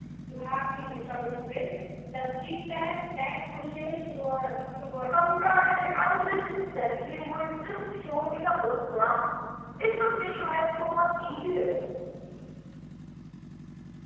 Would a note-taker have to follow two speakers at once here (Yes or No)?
Yes